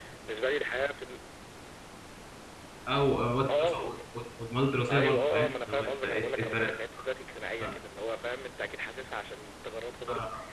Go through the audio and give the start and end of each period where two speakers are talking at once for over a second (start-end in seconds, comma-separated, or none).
4.9-6.7